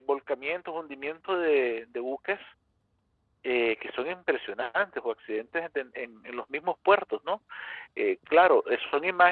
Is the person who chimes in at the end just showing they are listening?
Yes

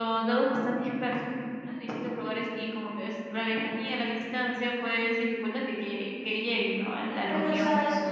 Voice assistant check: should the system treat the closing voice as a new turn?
Yes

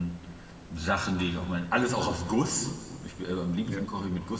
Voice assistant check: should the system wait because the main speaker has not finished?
Yes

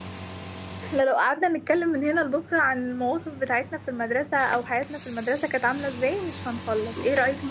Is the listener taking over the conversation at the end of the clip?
No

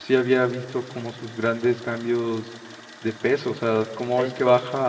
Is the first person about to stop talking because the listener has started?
No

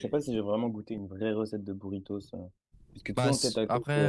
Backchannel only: No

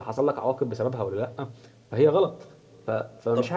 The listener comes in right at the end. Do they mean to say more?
No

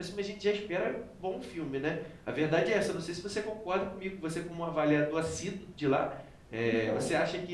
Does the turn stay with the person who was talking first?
Yes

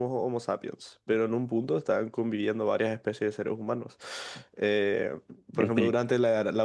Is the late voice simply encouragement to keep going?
Yes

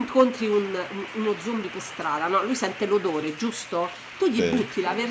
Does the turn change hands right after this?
No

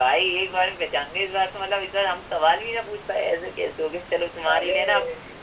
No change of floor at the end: Yes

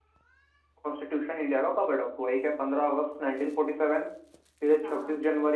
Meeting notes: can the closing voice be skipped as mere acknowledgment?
Yes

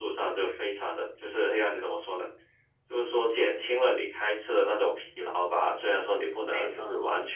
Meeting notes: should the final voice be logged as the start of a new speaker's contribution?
No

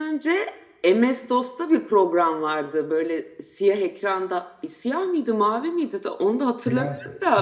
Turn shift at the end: No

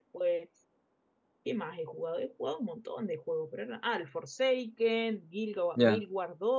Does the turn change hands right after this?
No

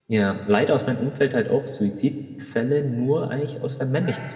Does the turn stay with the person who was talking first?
Yes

